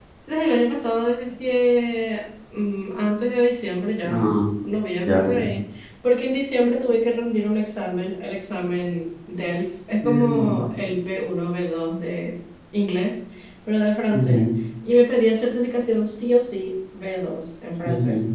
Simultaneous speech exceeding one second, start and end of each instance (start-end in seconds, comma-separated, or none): none